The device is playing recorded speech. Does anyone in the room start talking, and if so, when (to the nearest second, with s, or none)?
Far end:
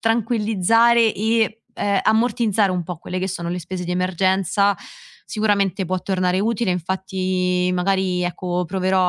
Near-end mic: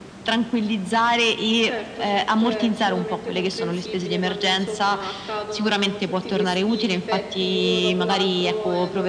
2 s